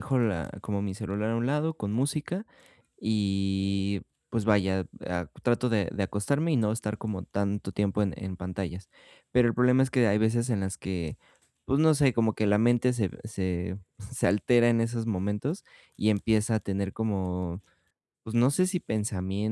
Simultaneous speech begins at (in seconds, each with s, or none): none